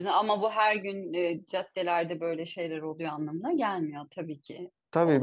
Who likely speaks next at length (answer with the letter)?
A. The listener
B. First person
A